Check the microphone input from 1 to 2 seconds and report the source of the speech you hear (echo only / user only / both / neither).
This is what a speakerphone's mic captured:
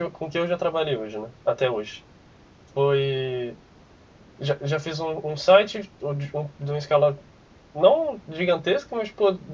user only